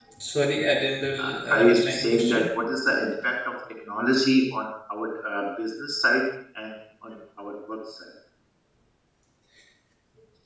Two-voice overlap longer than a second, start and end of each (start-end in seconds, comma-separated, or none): 1.2-2.5